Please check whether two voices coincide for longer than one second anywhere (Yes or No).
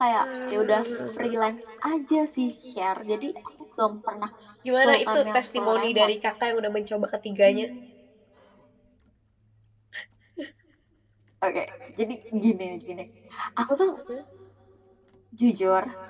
Yes